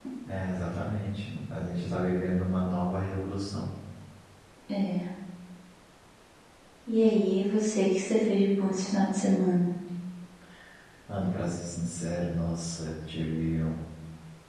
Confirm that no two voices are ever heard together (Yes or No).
Yes